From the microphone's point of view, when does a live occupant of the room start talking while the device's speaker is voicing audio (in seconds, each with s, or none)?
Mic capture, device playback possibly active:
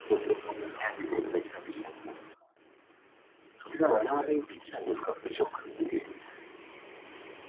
none